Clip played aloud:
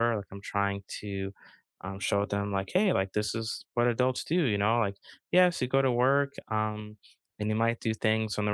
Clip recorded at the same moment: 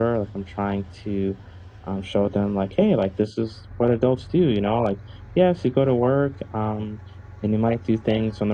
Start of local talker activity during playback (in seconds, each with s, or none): none